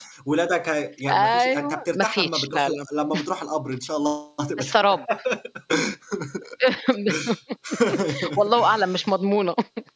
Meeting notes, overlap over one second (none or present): present